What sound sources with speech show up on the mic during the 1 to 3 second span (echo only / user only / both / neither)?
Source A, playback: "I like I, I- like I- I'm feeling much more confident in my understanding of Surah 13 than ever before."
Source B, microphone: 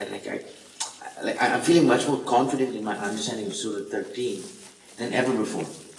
echo only